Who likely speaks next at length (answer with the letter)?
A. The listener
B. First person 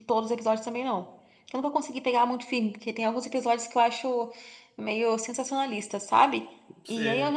B